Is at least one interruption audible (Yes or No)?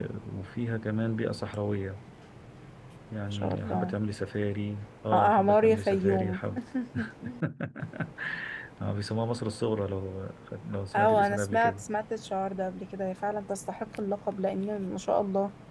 Yes